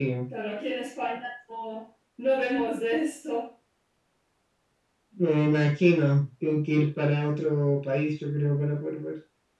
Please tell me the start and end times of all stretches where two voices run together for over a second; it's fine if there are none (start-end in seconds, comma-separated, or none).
none